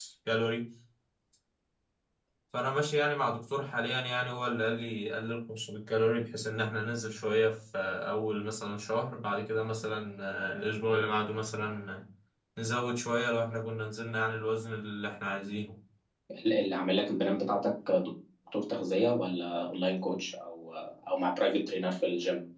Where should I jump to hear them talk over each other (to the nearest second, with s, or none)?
none